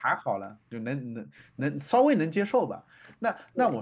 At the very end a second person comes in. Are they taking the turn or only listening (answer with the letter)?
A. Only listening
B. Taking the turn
A